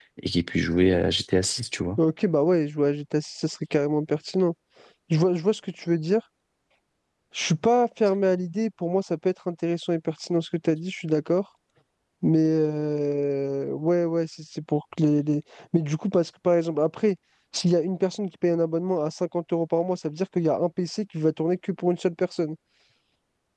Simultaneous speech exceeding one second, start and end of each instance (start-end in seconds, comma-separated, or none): none